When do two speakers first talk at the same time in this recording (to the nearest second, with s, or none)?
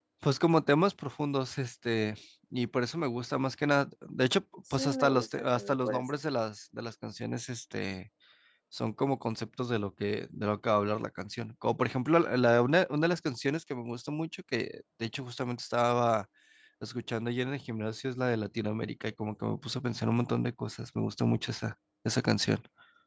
5 s